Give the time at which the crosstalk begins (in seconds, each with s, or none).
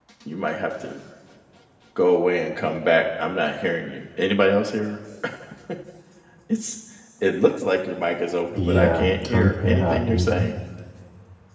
8.6 s